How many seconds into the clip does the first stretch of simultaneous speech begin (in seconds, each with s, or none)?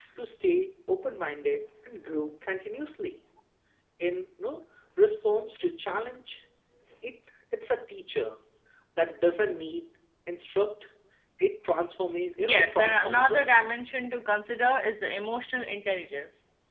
12.4 s